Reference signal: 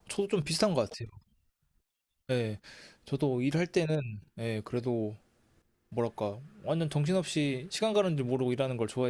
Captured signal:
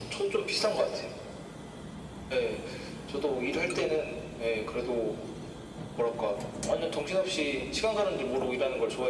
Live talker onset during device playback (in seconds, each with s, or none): none